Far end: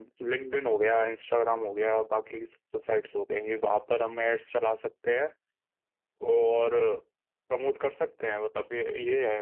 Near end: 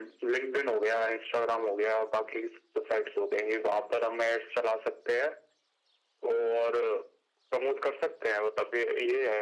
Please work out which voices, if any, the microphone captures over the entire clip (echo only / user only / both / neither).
echo only